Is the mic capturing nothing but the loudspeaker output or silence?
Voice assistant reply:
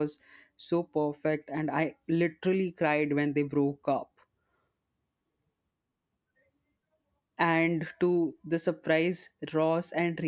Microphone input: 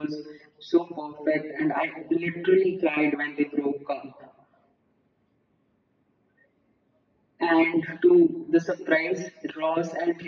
Yes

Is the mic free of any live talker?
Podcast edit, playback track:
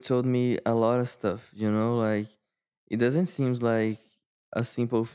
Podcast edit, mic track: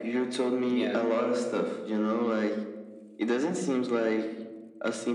No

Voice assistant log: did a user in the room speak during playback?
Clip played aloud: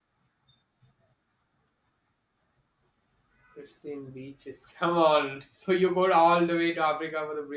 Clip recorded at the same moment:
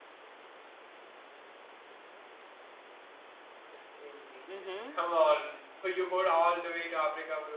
Yes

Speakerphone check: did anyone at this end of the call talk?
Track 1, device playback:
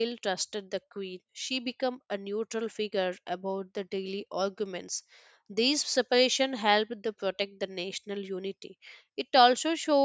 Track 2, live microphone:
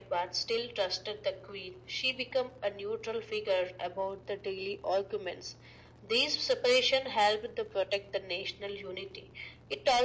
No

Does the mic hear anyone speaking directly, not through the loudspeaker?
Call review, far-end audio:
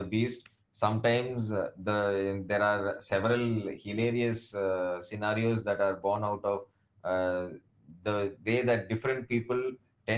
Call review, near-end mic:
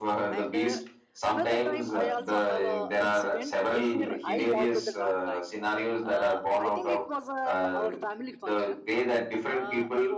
Yes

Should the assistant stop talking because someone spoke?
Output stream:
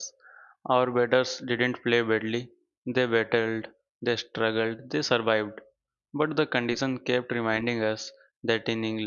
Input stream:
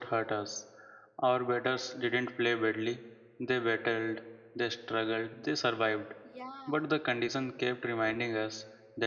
Yes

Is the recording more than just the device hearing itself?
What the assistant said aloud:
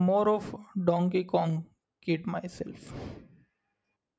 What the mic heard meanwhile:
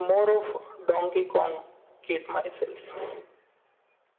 No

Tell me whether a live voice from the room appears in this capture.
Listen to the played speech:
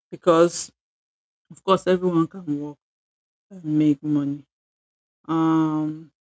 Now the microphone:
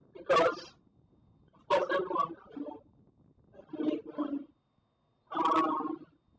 No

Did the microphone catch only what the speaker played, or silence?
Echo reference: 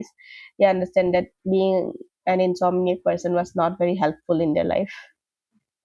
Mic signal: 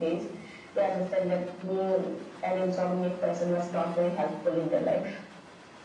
Yes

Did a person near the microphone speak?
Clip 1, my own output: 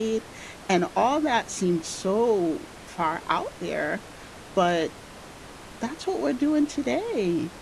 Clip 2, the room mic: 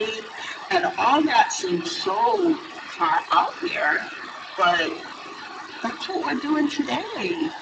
No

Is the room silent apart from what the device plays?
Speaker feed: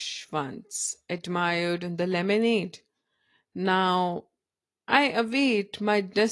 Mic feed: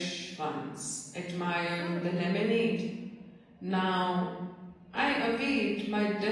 No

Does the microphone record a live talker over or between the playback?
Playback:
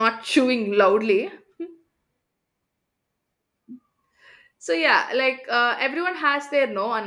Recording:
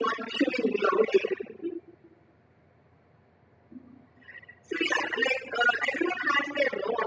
No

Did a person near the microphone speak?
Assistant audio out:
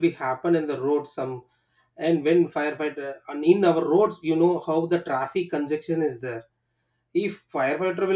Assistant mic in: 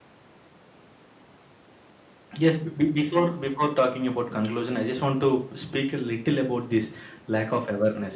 Yes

